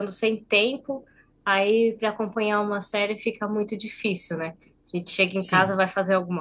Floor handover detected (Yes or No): No